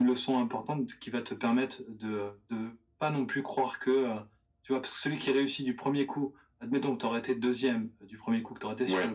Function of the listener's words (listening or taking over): listening